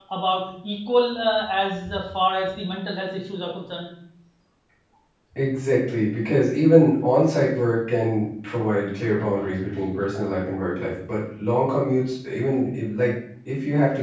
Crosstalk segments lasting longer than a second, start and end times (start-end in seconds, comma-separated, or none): none